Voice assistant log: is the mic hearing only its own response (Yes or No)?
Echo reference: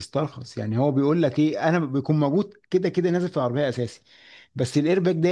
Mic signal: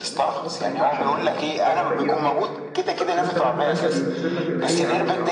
No